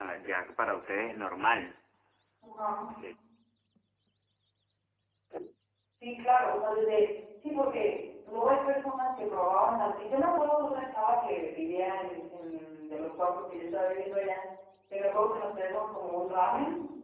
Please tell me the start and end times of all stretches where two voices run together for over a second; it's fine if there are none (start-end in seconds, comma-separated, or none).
none